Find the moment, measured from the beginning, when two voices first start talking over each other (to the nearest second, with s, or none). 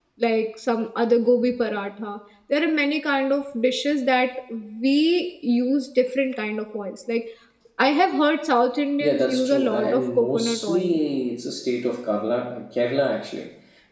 9 s